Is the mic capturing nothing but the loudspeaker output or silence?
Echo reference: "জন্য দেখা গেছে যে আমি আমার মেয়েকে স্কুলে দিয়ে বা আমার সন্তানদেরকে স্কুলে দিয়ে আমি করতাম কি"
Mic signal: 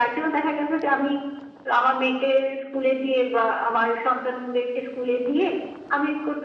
Yes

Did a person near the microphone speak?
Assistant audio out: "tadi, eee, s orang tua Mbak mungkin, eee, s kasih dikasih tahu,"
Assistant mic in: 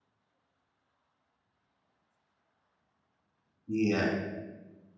Yes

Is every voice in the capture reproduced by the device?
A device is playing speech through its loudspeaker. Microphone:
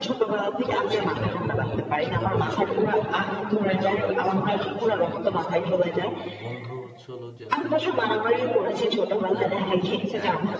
No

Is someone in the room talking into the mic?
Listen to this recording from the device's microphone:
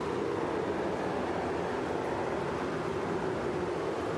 No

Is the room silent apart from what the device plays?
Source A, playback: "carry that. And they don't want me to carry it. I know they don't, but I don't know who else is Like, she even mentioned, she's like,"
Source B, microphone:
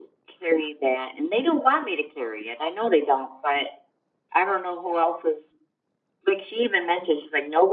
Yes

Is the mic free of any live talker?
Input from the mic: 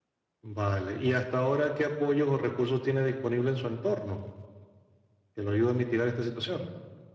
Yes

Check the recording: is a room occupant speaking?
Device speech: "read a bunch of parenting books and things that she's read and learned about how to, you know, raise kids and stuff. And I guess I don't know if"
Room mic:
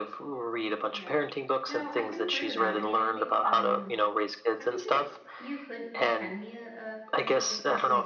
Yes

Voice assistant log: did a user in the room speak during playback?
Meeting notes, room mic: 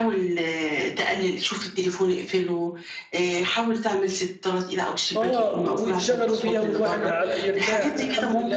Yes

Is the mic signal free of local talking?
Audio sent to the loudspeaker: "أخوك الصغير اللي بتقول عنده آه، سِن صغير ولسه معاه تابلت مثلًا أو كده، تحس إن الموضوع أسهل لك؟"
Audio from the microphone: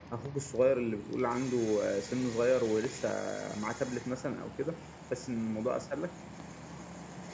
Yes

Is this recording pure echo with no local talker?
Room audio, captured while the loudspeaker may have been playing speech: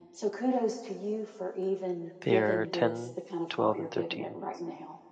No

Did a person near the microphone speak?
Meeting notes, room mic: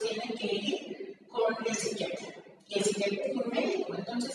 No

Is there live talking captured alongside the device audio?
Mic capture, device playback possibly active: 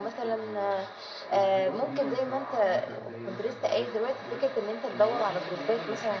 Yes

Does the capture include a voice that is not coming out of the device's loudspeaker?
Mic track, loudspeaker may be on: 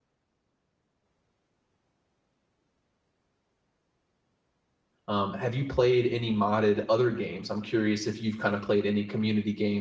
Yes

